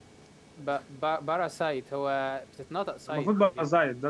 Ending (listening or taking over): taking over